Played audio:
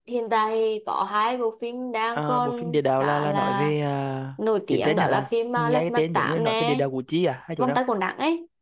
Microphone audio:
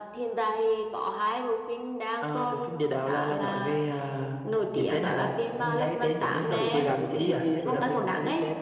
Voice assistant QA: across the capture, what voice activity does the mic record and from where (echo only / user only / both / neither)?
both